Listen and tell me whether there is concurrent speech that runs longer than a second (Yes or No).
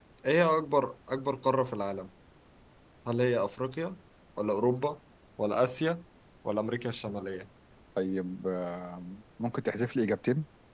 No